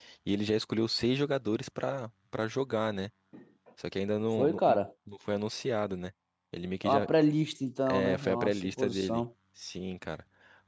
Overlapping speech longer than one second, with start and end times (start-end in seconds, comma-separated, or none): 7.9-9.2